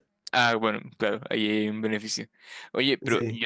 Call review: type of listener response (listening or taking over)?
listening